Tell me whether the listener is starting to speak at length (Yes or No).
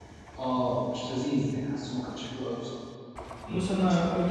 Yes